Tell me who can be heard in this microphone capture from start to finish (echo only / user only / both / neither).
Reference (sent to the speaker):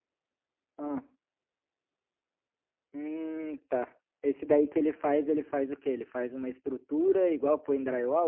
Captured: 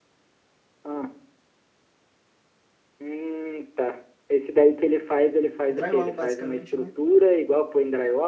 both